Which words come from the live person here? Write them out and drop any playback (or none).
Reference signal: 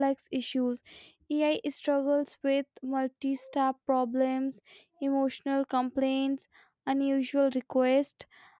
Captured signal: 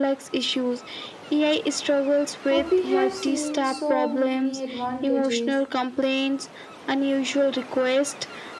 Uh, we have seen so many advantages,